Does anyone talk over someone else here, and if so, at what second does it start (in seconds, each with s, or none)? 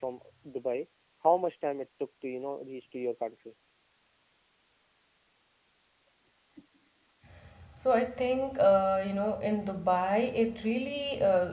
none